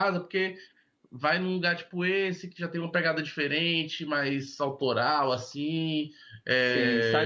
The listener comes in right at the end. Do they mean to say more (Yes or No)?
Yes